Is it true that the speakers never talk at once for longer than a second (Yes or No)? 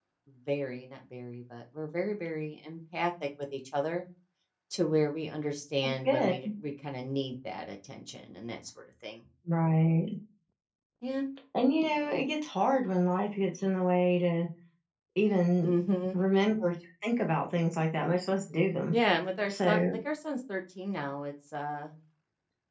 Yes